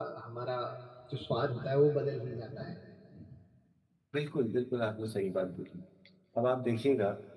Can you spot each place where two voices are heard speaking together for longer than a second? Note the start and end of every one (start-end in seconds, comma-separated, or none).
none